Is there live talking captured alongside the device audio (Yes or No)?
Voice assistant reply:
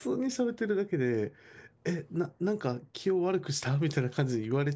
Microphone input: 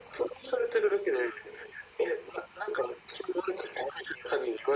No